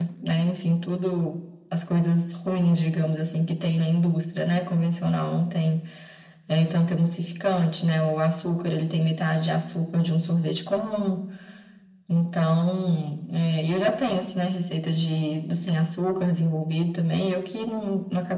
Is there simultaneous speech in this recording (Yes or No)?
No